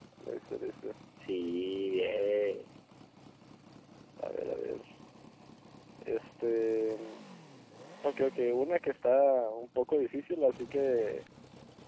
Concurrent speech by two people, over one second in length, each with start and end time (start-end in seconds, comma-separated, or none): none